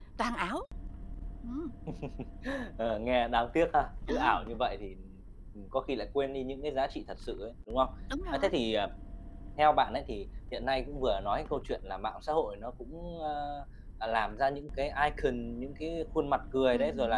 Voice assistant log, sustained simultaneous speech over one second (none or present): none